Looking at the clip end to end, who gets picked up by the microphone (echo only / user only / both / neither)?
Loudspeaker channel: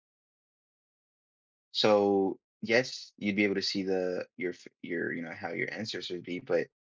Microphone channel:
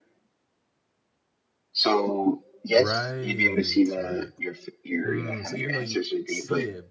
both